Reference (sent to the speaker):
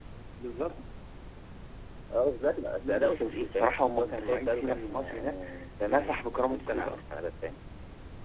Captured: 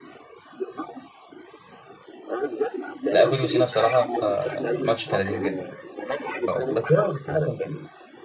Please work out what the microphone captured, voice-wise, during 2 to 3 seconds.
echo only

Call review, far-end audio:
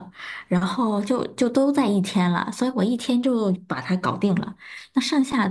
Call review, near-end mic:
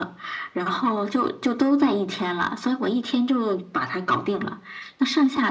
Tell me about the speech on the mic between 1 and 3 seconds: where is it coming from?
echo only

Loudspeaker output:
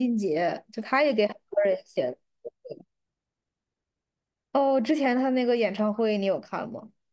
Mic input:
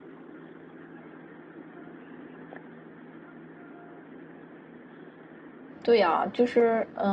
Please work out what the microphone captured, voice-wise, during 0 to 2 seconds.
neither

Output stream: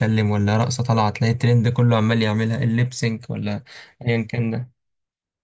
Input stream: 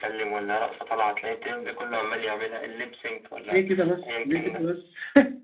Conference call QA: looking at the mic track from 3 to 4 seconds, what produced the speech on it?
both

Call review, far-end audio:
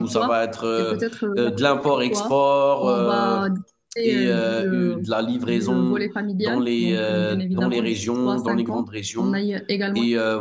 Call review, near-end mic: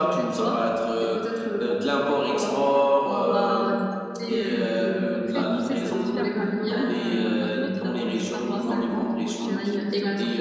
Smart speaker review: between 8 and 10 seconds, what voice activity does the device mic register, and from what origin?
both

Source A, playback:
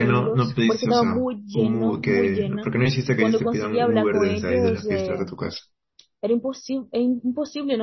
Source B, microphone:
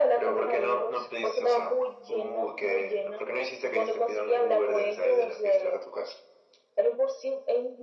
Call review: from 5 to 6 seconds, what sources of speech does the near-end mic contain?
echo only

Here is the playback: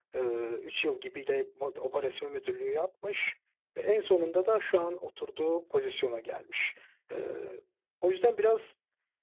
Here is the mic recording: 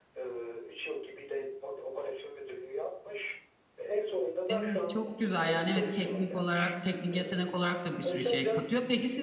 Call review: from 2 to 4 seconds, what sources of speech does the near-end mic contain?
echo only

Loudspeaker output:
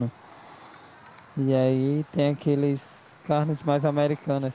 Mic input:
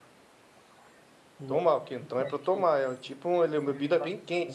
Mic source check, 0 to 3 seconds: both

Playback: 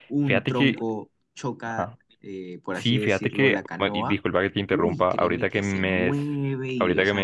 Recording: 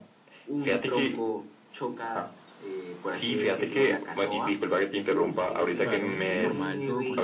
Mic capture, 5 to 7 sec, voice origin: both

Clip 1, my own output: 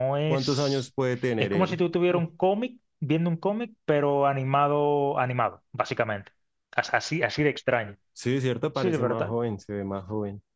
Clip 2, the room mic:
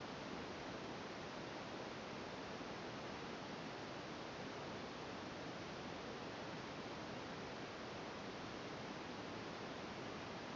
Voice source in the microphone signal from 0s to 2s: neither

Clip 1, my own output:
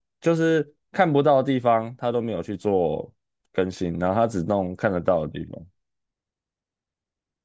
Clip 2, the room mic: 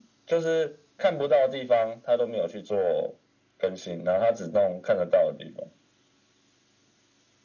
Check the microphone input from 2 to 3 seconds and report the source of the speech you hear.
echo only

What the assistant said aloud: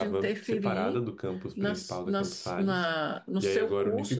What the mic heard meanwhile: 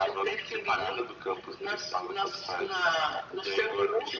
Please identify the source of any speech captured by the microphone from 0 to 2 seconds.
echo only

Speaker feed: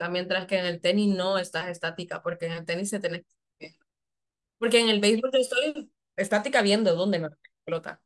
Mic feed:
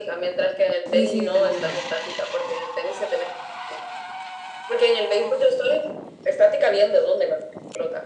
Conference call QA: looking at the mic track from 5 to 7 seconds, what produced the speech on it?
echo only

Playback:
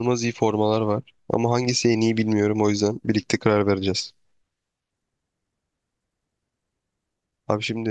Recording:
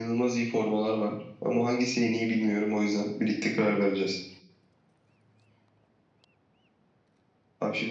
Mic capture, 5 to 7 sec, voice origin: neither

